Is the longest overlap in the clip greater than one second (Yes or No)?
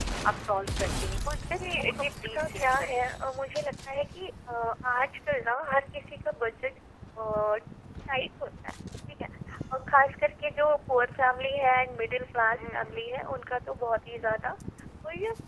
Yes